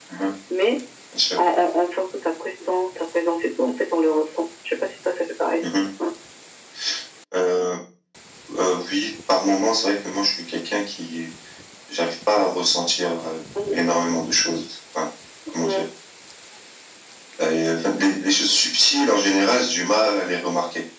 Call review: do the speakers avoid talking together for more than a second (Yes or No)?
Yes